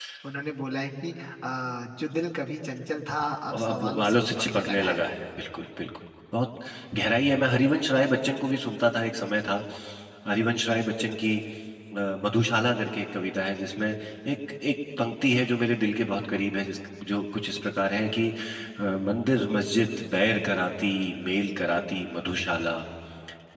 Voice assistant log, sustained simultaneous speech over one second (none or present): present